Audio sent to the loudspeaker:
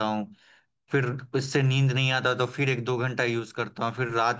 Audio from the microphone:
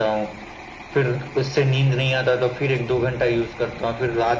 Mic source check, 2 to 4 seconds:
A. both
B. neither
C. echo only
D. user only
C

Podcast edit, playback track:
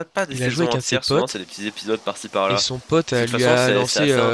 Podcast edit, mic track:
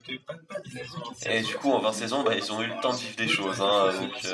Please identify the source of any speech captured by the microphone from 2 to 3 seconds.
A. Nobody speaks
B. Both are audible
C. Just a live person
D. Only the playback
B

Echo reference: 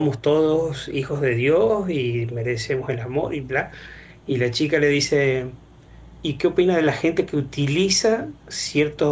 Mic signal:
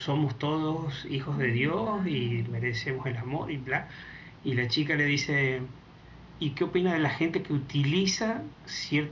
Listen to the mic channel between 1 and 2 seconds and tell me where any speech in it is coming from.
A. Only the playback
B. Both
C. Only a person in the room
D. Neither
B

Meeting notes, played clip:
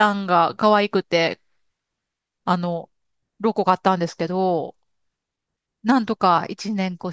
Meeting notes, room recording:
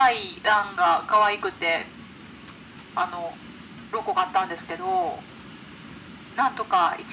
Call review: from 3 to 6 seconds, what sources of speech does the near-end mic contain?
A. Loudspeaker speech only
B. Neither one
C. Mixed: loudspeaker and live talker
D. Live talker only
A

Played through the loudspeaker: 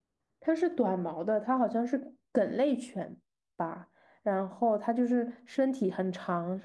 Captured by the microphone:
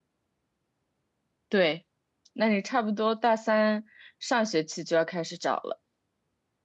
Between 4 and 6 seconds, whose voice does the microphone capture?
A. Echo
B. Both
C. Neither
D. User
D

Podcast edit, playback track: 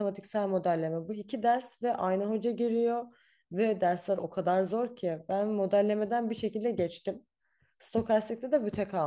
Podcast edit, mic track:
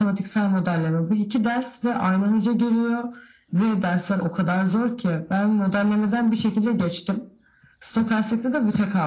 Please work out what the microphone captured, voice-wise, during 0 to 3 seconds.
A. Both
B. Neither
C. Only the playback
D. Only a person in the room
C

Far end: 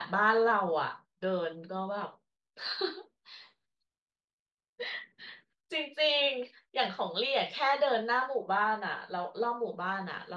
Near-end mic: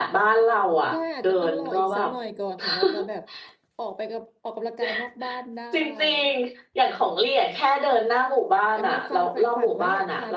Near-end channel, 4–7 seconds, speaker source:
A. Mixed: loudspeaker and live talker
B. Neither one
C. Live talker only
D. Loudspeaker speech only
A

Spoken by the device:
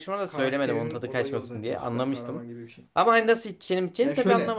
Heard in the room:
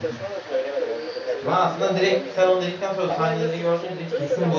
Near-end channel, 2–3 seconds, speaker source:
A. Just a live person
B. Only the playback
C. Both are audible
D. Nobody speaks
C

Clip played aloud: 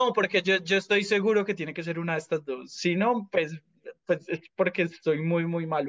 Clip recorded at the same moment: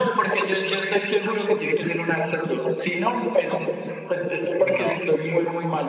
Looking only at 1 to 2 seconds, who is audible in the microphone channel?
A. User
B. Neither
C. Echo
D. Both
C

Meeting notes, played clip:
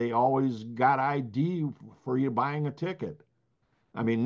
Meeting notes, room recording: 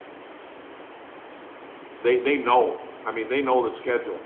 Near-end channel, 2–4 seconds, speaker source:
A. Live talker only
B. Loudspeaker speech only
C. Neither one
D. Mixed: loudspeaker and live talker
A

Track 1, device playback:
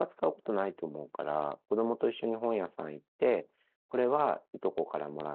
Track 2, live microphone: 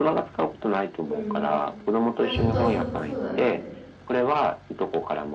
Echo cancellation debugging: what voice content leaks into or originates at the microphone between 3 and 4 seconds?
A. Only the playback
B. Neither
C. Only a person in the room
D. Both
D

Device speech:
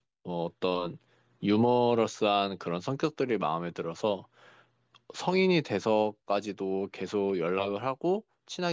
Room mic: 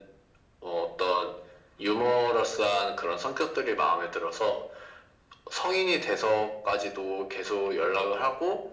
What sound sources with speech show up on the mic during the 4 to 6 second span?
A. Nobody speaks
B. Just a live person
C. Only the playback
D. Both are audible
C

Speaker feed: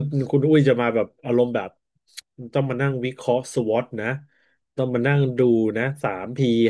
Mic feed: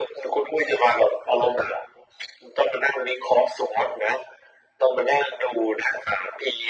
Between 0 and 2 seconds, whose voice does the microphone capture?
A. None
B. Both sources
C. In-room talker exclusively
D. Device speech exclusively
D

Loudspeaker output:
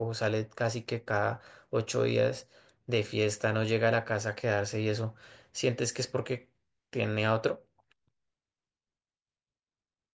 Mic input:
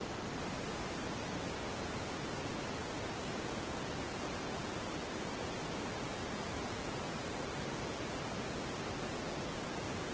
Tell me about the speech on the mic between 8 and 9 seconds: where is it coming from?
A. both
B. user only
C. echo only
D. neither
D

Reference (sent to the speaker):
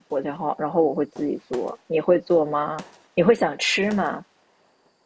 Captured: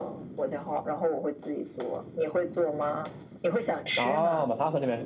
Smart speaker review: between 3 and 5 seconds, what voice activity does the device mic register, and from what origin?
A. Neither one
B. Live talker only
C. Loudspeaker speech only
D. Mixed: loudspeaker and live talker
D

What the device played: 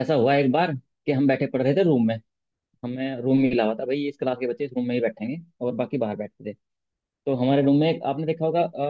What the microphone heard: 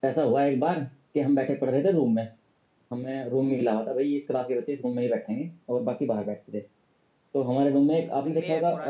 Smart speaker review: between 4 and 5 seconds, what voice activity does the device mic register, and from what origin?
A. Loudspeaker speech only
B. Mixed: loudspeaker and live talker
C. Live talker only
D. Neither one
A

